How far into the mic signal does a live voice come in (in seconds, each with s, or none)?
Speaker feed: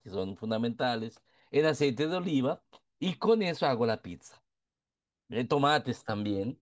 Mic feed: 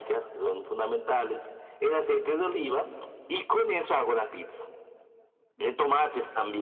none